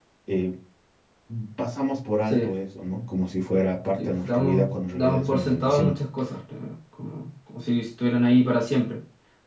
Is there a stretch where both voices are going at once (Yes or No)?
Yes